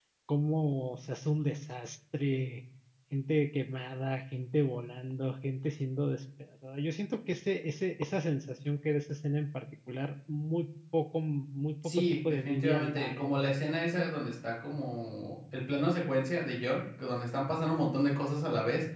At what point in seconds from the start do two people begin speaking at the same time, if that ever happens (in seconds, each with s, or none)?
11.8 s